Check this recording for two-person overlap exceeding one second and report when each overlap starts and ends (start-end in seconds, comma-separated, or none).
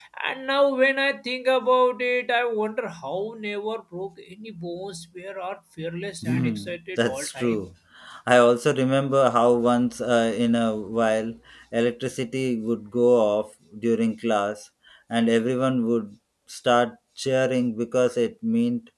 6.2-7.6